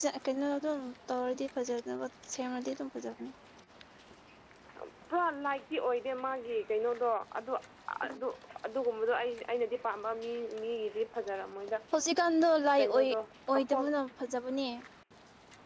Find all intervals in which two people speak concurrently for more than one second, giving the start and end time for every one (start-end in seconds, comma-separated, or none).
none